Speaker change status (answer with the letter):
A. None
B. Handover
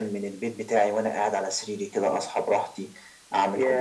A